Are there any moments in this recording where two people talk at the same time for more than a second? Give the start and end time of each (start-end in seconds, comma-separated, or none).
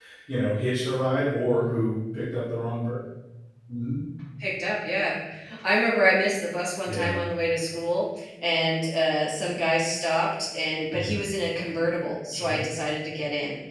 none